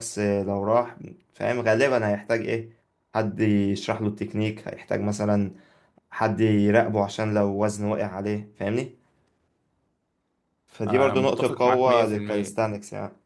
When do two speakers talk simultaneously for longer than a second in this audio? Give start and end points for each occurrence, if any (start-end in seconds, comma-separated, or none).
10.9-12.6